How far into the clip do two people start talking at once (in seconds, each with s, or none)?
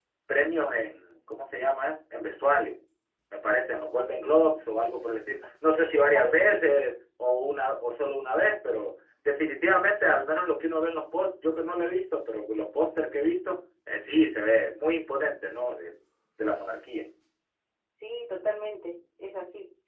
5.4 s